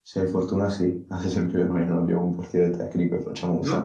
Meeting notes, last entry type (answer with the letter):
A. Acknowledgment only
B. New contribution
A